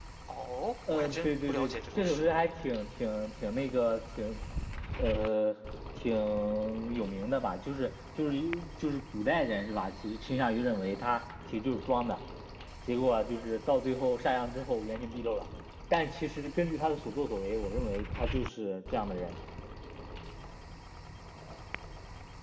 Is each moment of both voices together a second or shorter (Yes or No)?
No